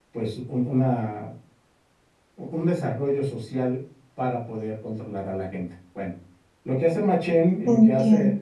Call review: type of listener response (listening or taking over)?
listening